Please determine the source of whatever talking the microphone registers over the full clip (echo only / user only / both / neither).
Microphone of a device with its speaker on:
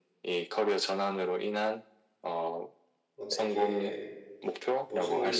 both